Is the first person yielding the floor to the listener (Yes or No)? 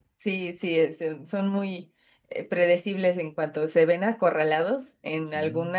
No